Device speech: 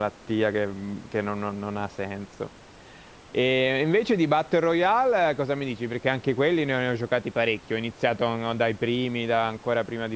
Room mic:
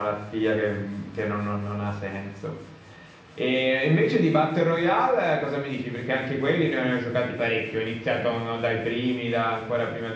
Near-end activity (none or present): none